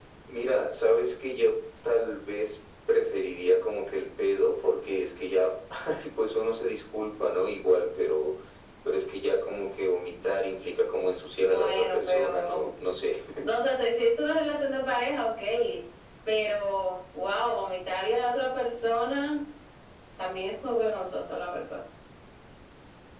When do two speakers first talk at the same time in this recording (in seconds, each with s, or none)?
11.4 s